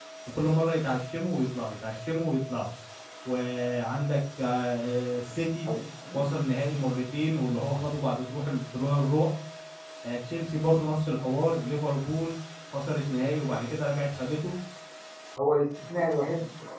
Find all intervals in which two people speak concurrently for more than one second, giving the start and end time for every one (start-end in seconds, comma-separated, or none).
none